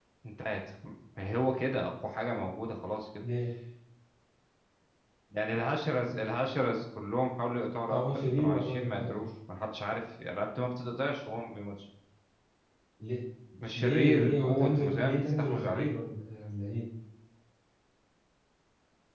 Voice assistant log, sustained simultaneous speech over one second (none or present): present